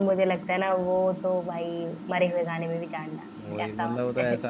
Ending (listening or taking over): taking over